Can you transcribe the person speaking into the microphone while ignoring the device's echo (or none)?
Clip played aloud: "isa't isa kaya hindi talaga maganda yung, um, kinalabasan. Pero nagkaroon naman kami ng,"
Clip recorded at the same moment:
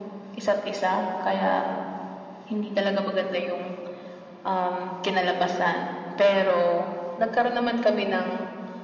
none